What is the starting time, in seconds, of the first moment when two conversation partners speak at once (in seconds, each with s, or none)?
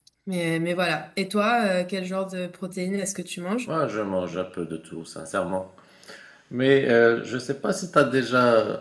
none